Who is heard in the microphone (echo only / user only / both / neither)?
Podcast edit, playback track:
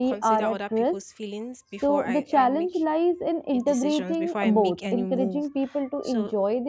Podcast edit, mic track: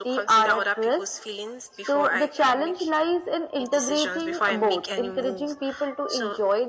echo only